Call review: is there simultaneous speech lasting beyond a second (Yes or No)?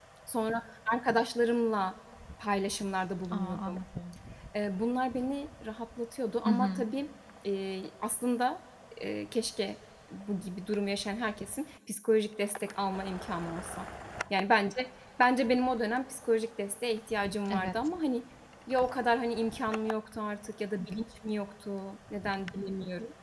No